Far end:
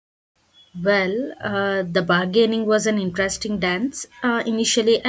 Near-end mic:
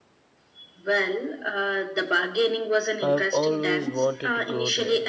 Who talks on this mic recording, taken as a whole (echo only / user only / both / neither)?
both